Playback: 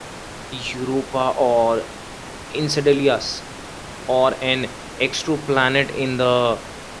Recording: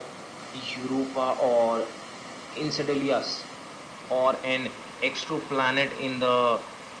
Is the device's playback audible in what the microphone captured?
Yes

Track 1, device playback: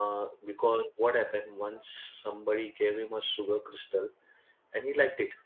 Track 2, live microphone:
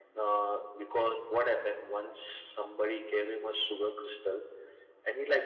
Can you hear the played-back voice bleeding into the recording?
Yes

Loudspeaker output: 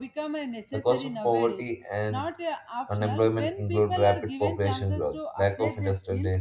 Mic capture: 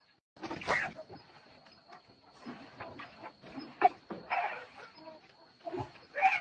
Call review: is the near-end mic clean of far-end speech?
Yes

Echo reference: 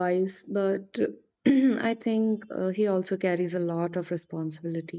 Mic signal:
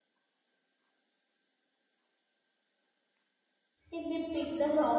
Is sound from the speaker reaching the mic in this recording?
No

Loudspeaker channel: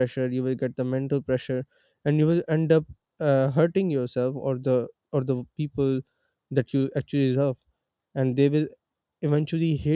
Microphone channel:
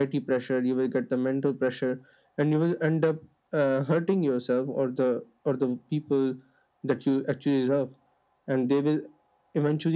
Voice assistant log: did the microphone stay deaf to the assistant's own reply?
No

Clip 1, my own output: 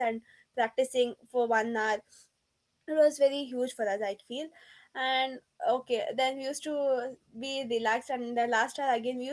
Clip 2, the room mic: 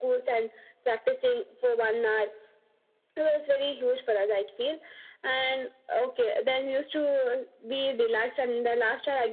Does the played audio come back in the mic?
Yes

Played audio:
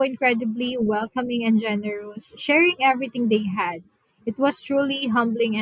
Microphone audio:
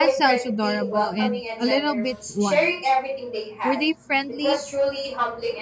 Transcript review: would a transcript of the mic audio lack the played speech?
No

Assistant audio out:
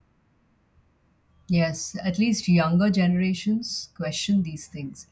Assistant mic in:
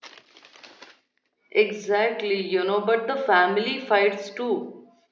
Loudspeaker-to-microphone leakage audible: No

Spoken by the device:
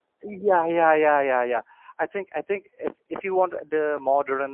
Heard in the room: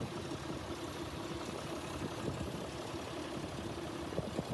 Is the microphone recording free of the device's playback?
Yes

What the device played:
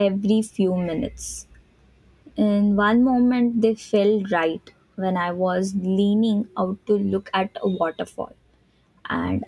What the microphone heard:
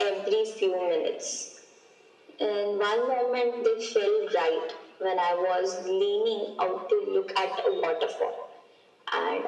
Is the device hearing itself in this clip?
Yes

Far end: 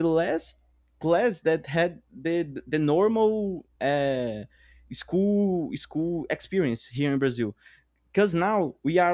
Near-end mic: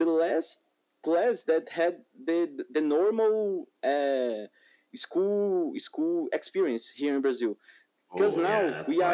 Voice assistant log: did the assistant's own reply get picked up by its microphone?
Yes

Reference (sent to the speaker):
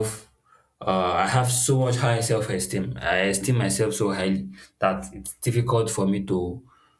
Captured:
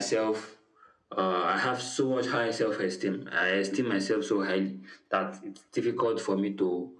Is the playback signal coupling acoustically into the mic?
Yes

